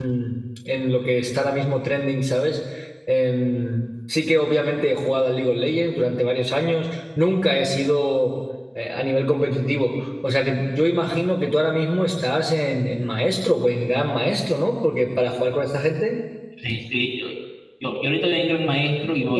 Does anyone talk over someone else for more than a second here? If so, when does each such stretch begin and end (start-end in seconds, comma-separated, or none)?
none